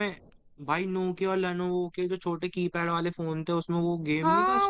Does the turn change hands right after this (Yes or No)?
Yes